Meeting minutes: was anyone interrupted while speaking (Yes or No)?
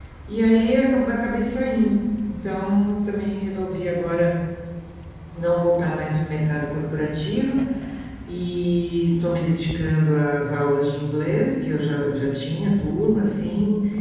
No